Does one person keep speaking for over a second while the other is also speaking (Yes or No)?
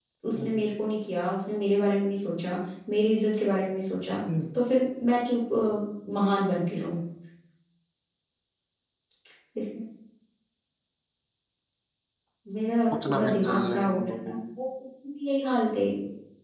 Yes